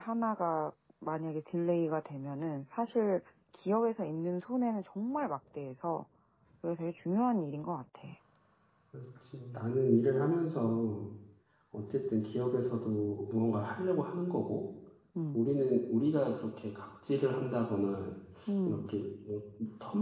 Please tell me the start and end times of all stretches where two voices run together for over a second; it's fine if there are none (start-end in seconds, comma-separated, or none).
none